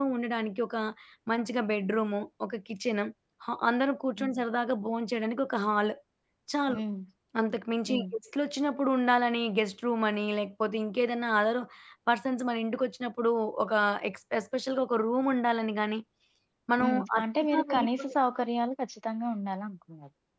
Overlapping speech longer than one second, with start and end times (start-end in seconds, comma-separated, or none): 16.8-18.1